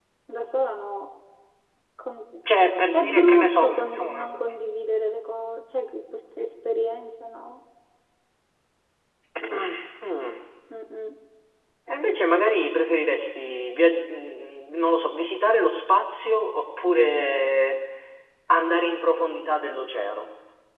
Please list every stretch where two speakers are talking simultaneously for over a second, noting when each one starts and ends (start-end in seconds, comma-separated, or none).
2.9-4.3